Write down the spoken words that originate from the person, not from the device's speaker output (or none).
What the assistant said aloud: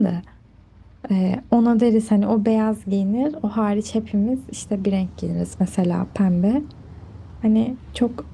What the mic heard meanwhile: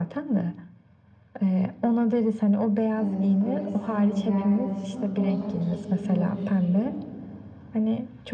Evet böyle senle bir arkadaşının ortak keşfetini oluşturuyor.